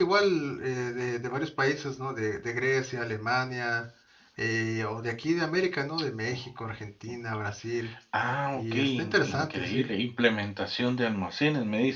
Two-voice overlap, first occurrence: 9 s

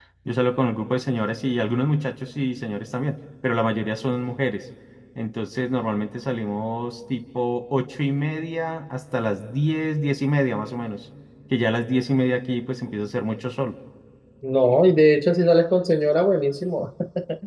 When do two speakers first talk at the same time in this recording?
none

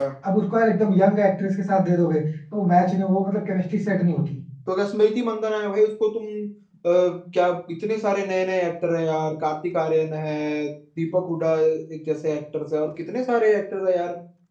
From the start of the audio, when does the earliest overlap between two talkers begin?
none

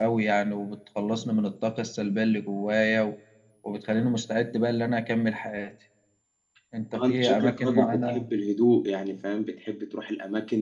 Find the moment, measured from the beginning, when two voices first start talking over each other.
7 s

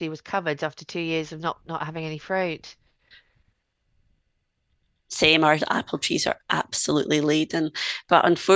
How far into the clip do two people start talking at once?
none

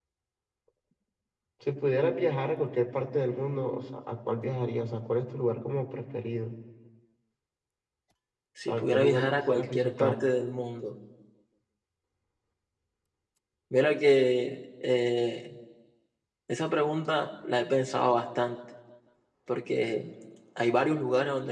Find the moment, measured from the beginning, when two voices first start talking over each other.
9 s

